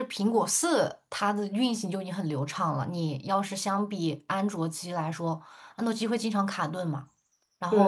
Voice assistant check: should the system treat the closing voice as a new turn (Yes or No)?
Yes